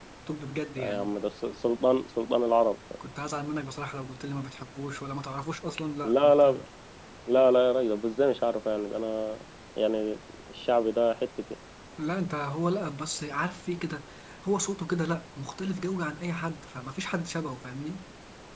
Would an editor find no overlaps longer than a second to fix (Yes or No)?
Yes